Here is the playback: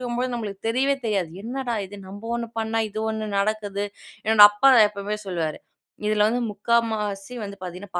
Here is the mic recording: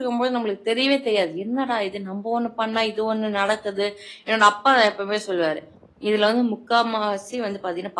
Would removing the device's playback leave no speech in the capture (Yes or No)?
Yes